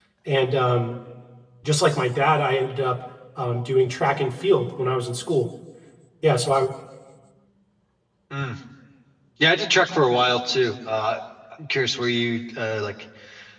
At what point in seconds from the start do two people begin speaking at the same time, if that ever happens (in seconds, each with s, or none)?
none